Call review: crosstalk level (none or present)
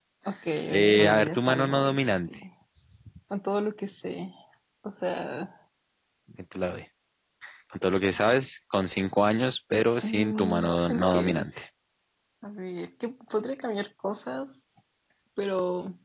present